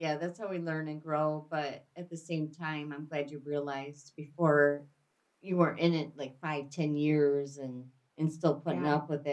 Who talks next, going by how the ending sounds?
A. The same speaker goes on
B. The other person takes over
A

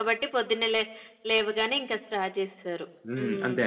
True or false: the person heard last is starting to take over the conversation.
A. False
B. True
B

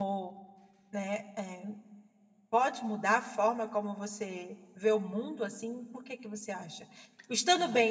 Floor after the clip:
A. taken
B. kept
B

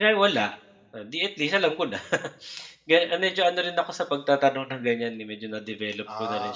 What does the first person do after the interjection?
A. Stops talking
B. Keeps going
A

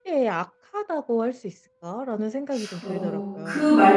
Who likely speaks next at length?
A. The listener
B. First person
A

